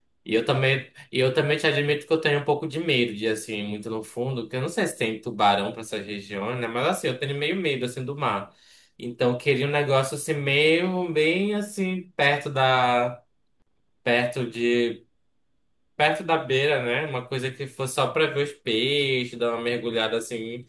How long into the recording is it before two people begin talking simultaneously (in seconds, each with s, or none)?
none